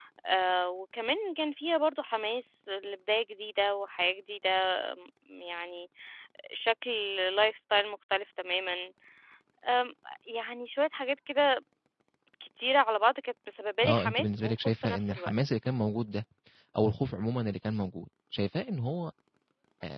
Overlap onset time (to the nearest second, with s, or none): 14 s